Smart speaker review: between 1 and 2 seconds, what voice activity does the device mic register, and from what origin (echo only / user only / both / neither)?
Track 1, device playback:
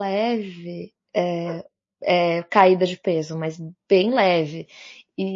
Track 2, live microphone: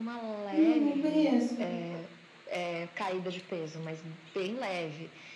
both